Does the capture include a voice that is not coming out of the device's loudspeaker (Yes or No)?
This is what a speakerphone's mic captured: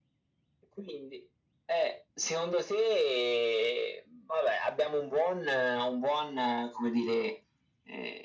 No